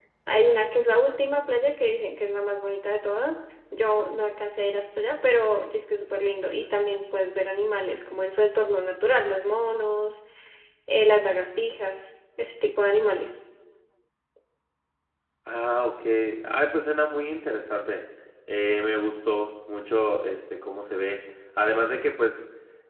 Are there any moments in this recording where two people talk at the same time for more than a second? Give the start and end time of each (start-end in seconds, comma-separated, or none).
none